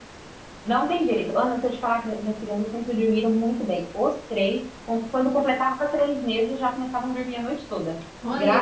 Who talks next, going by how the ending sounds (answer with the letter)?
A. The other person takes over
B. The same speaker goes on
A